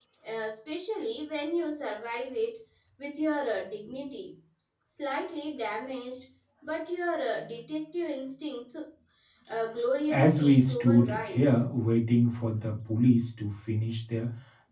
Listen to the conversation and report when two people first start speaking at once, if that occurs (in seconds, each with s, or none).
10.1 s